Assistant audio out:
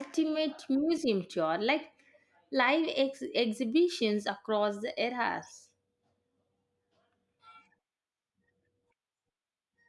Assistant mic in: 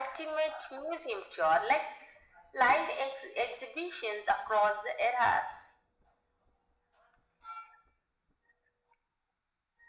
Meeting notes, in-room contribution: none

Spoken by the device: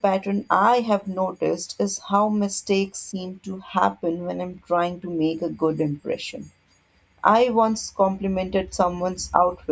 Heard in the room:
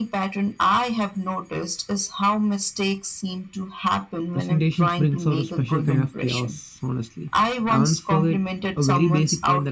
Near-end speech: present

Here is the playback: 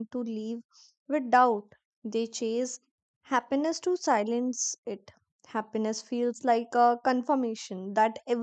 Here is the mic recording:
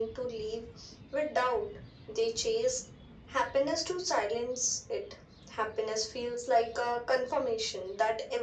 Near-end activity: none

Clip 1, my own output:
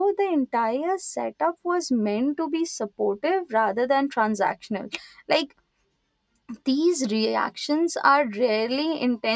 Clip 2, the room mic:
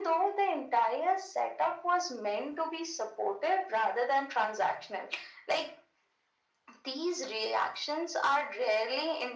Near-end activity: none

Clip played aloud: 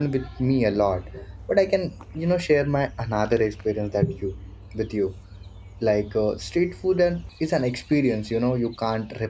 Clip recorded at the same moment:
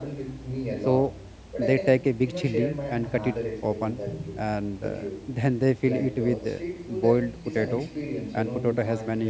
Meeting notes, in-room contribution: present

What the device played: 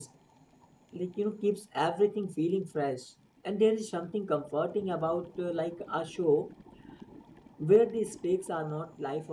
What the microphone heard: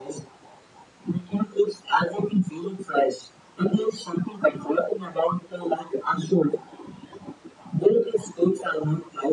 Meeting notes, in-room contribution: none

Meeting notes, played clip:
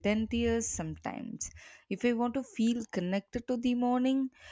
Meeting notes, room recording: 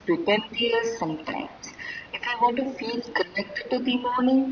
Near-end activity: none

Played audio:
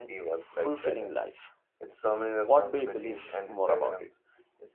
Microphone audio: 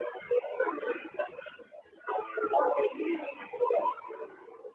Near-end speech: none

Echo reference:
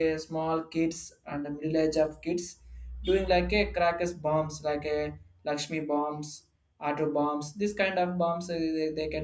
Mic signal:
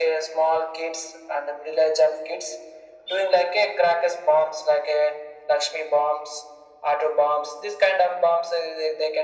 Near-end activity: none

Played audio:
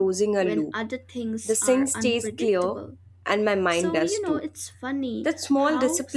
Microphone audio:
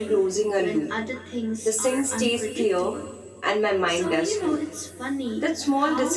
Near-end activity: none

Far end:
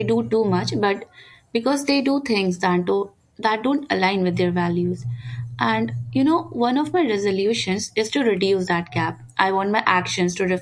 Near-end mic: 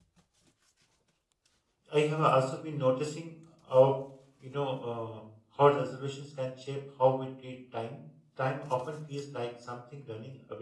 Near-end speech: present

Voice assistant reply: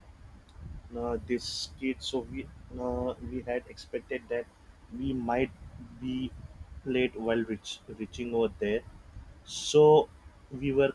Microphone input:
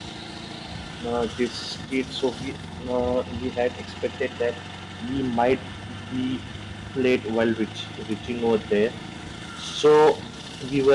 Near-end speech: none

